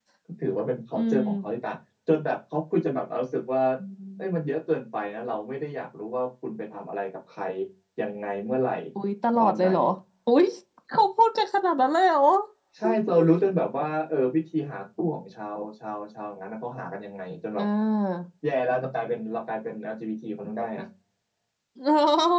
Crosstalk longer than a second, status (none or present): none